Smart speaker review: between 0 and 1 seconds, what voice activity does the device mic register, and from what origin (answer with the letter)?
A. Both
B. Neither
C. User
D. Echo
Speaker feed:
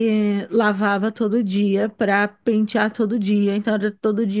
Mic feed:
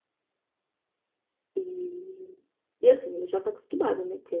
B